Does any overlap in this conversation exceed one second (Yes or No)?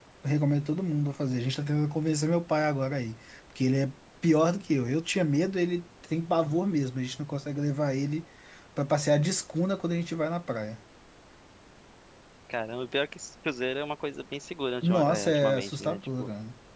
Yes